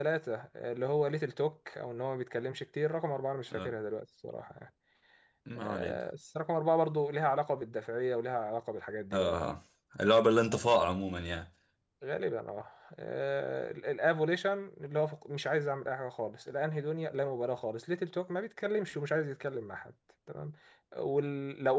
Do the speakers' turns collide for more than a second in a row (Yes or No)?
No